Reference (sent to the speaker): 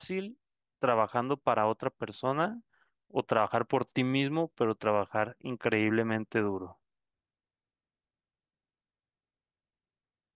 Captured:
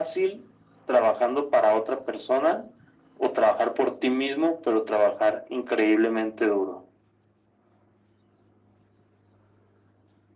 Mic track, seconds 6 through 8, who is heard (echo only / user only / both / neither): echo only